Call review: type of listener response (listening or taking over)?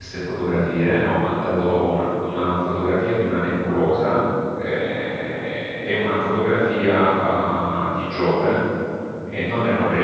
listening